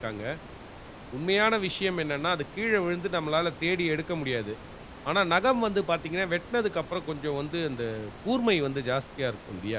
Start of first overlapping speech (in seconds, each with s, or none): none